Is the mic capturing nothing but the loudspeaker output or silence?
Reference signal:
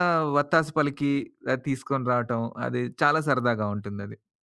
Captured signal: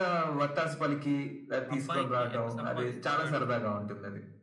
No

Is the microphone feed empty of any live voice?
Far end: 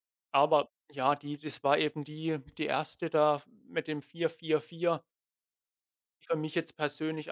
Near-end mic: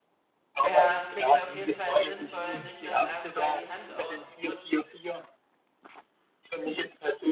No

